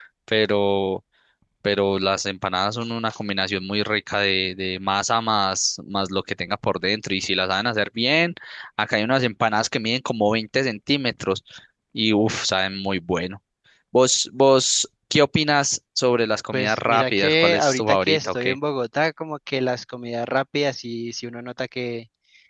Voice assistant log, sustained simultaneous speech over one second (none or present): present